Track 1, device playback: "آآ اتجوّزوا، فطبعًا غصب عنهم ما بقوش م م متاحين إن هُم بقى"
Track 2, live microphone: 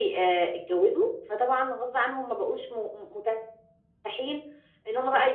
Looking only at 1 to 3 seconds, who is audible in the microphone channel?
echo only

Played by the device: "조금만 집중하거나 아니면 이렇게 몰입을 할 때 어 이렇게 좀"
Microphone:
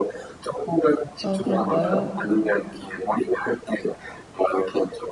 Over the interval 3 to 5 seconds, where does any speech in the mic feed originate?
echo only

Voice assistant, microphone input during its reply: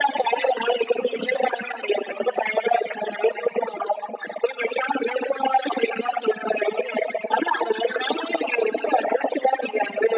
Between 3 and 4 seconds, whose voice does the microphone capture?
echo only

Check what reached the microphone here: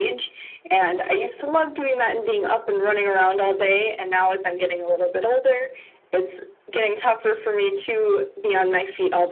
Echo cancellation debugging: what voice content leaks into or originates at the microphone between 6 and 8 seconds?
echo only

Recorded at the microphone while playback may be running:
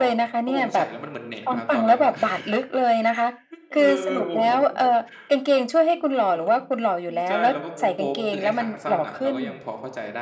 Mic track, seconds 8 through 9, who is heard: both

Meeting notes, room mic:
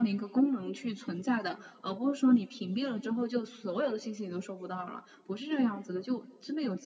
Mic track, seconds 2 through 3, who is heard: echo only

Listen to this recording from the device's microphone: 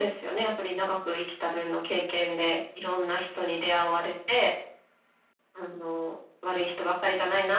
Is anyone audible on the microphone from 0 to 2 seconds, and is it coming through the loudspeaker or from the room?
echo only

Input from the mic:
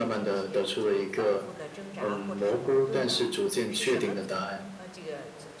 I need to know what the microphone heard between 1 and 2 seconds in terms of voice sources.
both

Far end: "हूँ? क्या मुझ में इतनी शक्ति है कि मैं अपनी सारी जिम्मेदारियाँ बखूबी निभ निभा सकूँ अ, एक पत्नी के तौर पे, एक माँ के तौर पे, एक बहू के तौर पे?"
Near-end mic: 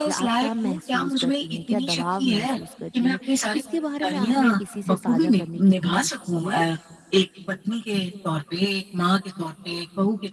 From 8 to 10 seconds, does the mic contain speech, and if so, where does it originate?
echo only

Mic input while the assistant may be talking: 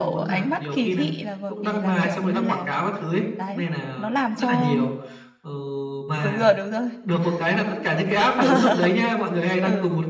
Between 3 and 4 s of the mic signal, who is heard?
both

